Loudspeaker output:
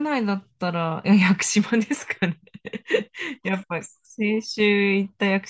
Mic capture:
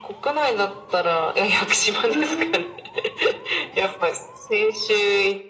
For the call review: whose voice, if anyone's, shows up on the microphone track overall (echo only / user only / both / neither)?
both